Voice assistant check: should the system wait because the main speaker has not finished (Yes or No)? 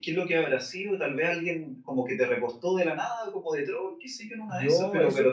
Yes